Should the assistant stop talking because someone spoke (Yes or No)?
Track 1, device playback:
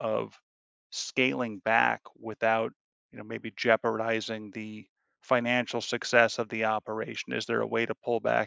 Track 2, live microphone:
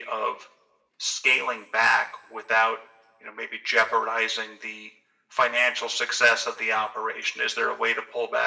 No